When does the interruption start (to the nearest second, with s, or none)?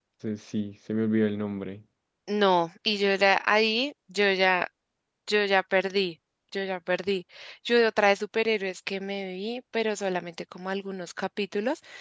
none